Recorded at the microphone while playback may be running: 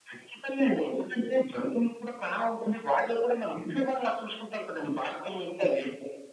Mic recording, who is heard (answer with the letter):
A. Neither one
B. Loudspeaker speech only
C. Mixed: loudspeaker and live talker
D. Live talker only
B